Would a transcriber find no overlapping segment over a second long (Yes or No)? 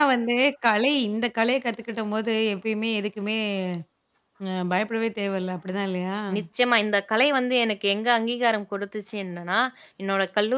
Yes